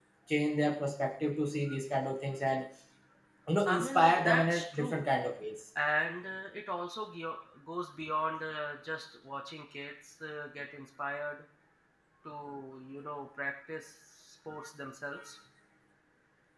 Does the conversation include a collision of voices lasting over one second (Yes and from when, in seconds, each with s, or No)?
Yes, from 3.6 s